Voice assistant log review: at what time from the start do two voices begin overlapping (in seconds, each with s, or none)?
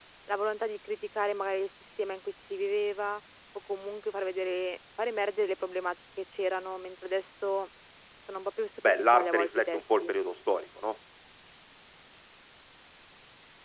8.8 s